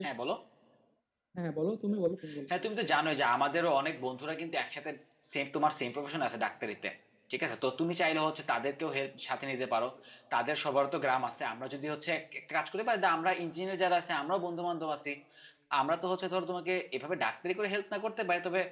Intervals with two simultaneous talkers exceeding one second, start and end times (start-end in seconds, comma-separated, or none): none